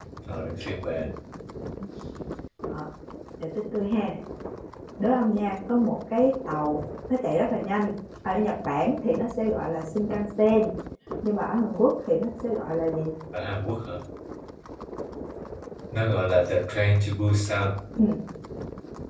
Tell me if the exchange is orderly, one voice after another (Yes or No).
Yes